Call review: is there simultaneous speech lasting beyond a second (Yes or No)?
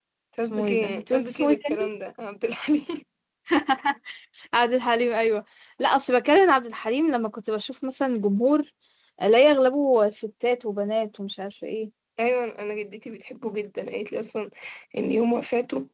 Yes